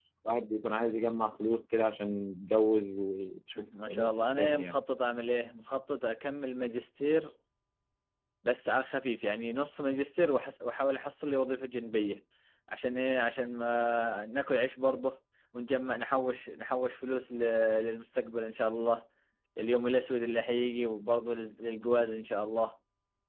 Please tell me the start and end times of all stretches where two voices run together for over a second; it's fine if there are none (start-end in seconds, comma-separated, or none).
3.6-4.8